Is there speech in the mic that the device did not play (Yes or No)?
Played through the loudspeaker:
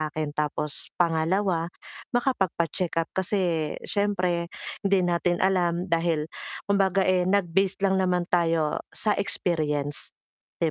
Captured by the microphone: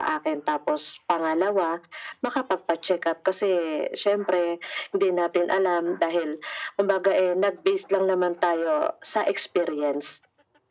No